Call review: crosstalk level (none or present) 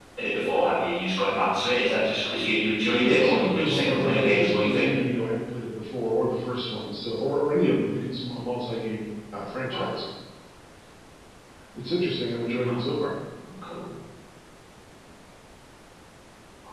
present